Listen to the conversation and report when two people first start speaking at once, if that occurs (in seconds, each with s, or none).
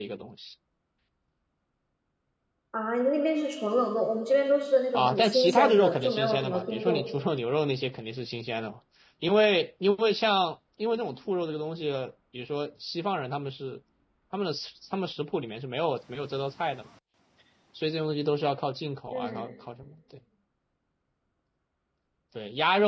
4.9 s